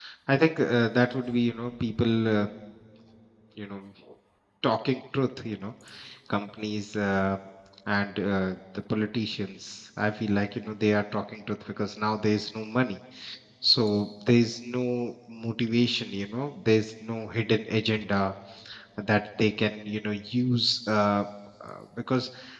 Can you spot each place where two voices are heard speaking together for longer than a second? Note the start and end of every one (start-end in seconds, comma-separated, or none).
none